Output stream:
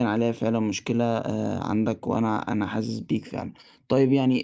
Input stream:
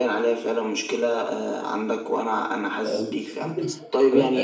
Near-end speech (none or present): present